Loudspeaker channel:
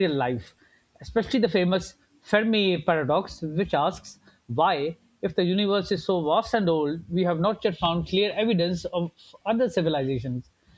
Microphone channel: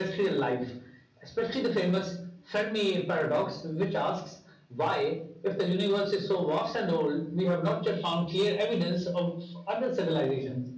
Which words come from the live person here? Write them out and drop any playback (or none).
none